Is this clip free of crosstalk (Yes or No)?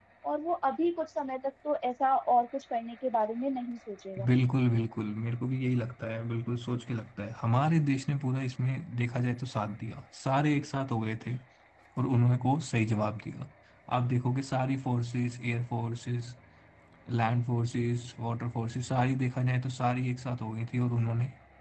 Yes